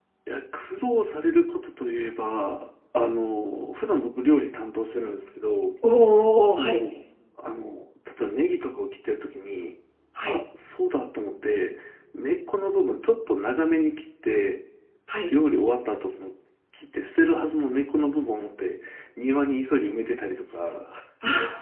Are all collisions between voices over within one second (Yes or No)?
Yes